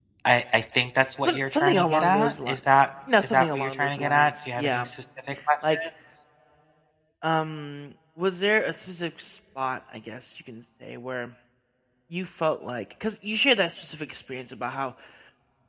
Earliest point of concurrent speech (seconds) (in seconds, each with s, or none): 1.2 s